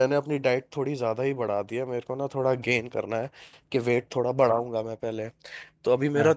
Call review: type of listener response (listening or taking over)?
listening